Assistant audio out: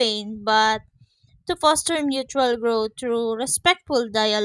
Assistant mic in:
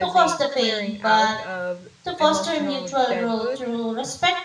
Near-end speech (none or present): present